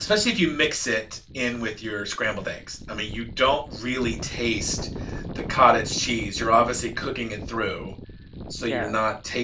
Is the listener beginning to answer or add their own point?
No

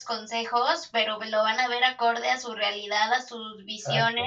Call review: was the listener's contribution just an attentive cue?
Yes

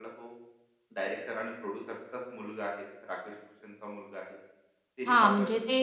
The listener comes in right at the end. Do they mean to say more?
Yes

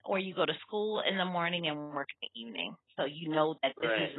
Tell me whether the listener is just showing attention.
Yes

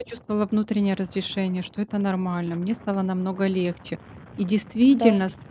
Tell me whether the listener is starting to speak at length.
No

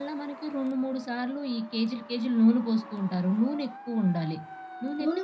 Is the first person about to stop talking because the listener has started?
Yes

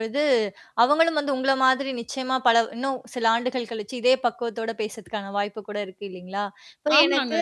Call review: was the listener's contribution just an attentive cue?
Yes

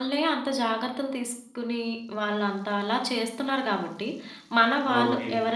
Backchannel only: Yes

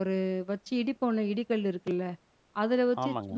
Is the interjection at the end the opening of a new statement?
No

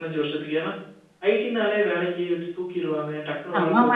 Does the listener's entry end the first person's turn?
Yes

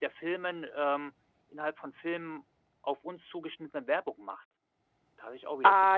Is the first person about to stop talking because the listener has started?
Yes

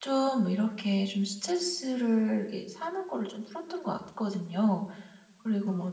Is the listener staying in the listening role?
Yes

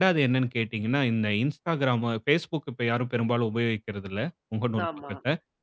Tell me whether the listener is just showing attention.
Yes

